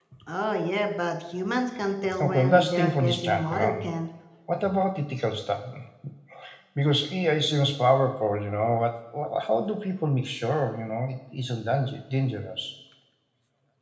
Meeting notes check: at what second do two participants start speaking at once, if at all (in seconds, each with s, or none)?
2.0 s